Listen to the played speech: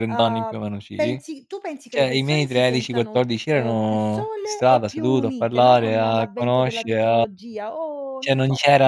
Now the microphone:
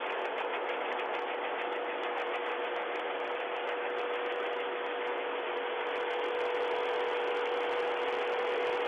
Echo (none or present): none